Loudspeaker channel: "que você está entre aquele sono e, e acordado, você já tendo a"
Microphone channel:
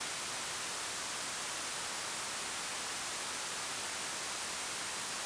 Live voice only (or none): none